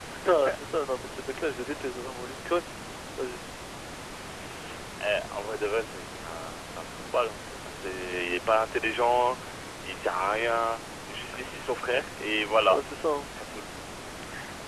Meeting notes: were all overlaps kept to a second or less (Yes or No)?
Yes